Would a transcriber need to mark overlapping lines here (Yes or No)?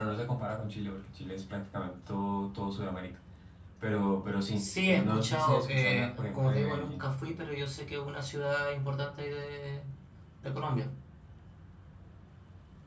Yes